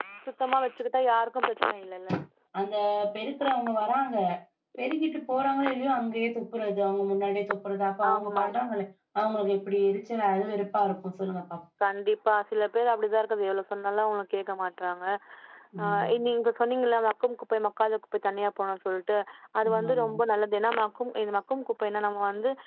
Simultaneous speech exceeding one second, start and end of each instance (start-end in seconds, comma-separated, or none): none